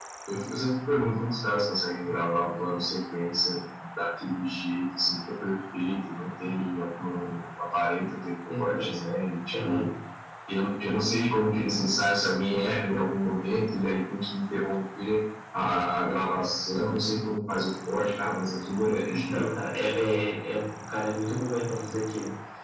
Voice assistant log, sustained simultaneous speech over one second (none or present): none